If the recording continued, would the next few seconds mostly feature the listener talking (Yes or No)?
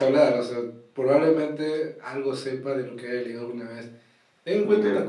No